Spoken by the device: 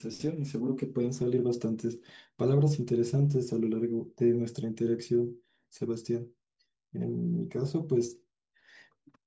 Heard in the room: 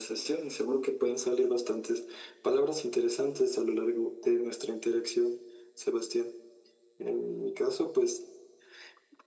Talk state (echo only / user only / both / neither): echo only